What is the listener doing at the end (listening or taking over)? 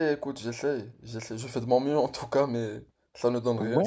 taking over